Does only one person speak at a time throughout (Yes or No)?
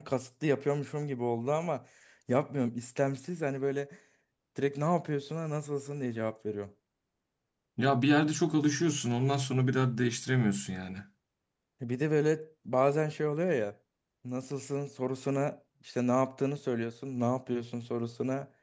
Yes